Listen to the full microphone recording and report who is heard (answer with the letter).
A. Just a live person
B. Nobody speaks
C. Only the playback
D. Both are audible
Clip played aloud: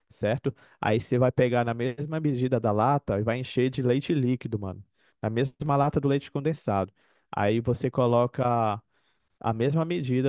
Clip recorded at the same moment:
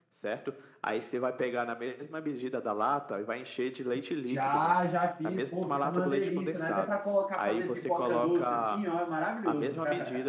D